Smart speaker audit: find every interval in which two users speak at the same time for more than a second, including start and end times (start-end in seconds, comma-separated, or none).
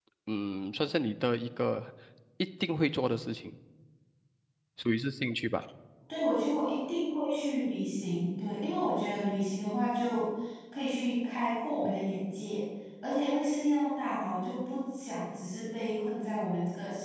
none